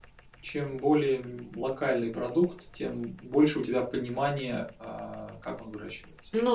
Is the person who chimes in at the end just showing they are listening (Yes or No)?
No